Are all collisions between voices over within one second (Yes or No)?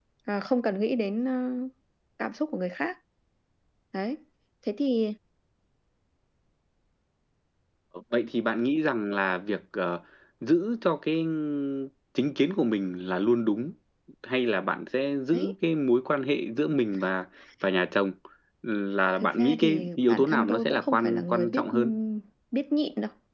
No